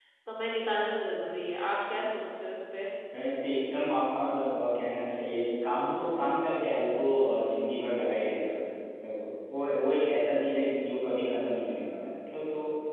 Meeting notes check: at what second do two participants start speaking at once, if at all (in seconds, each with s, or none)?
none